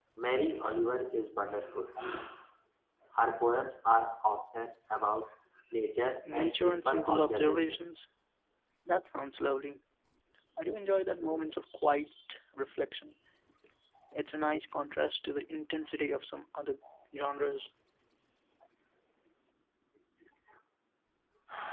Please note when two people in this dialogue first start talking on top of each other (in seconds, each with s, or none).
6.2 s